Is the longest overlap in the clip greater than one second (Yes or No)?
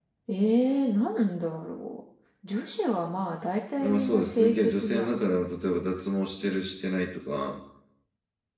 Yes